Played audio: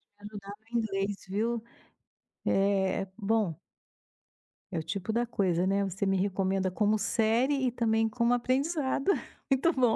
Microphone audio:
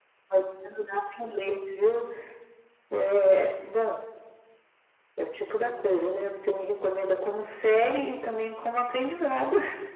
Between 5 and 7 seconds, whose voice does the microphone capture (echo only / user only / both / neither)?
both